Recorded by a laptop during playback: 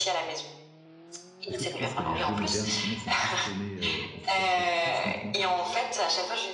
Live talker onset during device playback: 1.5 s

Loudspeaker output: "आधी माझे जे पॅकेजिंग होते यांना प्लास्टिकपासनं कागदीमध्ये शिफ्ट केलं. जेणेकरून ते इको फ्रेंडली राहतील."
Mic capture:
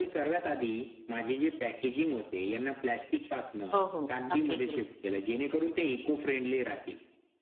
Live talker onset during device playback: 3.7 s

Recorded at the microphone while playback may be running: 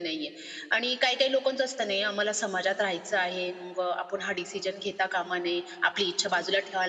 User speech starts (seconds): none

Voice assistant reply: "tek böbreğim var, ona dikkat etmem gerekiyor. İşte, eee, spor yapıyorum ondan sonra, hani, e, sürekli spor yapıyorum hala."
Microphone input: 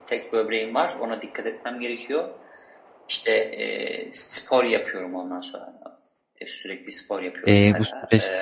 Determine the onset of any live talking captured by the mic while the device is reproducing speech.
7.4 s

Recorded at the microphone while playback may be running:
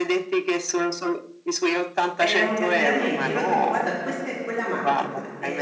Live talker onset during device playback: 2.2 s

